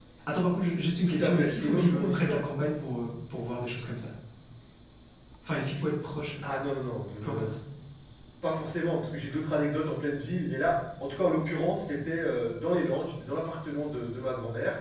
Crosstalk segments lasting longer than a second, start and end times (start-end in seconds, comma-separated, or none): 1.1-2.4